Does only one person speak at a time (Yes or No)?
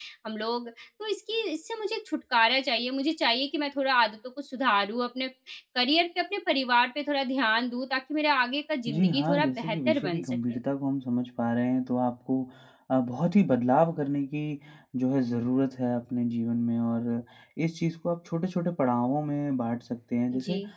No